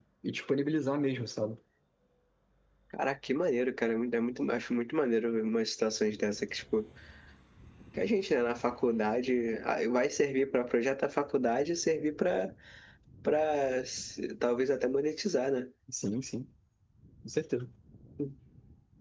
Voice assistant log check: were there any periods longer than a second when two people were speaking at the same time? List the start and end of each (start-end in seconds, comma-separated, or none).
none